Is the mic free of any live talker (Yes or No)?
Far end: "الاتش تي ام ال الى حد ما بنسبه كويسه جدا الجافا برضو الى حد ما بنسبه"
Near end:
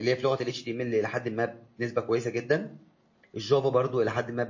Yes